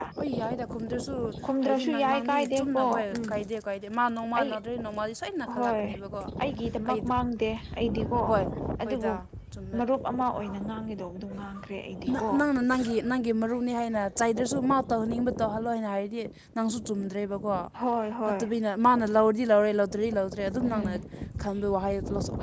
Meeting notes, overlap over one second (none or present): present